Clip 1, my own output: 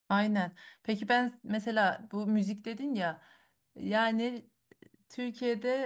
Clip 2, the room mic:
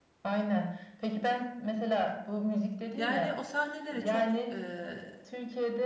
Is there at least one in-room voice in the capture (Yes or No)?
Yes